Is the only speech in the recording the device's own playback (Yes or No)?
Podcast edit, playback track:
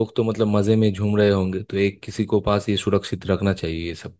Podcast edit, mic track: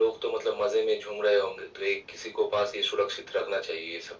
Yes